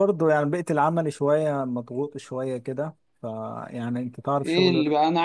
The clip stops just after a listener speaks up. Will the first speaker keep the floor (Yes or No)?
No